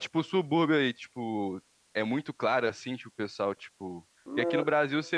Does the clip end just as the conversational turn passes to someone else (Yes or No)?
No